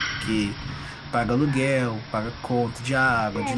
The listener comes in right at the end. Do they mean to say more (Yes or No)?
Yes